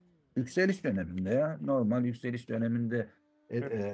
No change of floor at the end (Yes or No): Yes